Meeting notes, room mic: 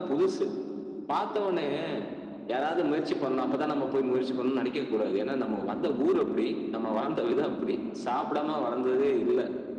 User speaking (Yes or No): No